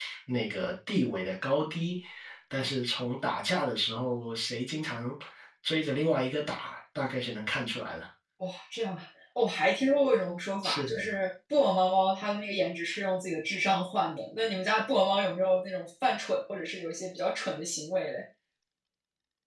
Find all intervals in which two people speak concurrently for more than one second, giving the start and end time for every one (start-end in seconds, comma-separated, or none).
none